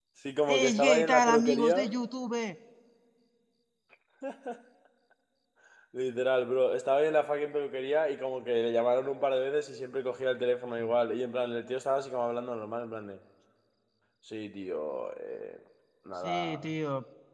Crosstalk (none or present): present